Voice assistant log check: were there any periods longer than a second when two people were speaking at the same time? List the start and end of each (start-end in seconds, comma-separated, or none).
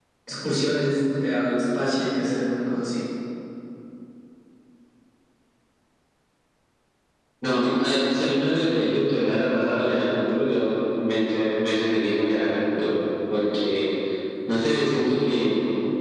none